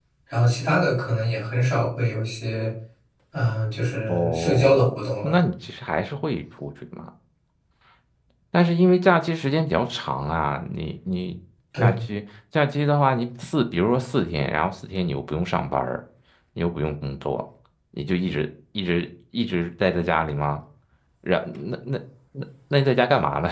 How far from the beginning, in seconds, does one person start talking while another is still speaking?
4.1 s

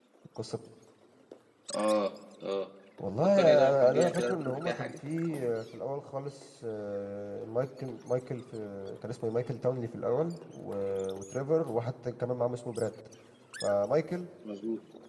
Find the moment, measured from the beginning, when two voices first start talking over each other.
3.2 s

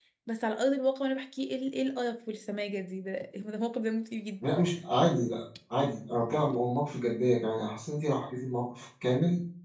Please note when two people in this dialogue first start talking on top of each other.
none

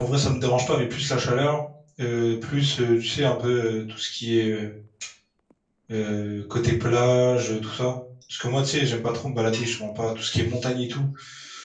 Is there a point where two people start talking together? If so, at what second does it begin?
none

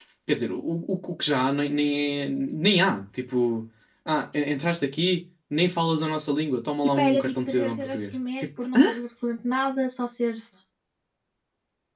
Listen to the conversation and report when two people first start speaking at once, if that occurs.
7.0 s

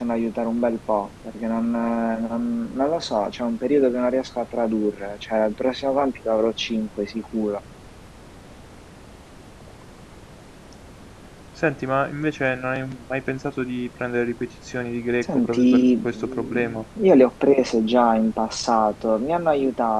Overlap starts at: 15.2 s

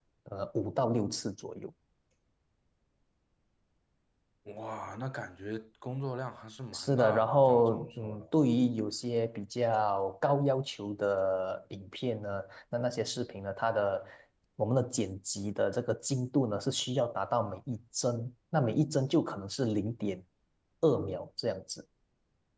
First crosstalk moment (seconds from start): 6.7 s

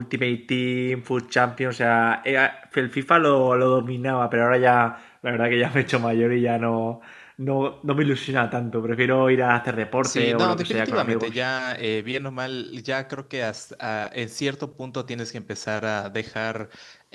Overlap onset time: 10.0 s

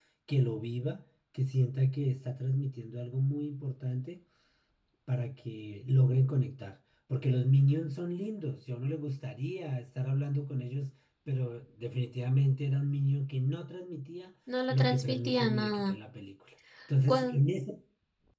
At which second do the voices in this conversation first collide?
14.7 s

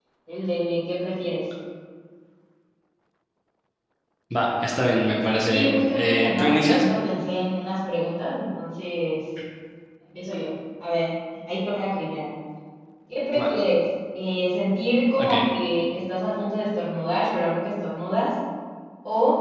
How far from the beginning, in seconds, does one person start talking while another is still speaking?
5.5 s

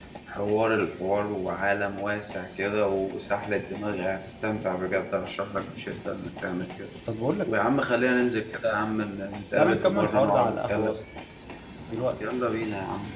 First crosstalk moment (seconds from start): 9.6 s

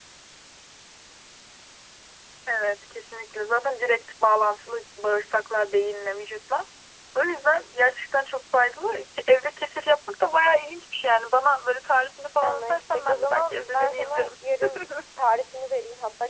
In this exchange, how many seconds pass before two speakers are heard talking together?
12.4 s

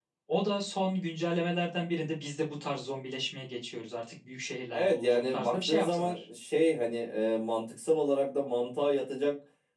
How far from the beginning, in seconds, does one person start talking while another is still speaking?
4.7 s

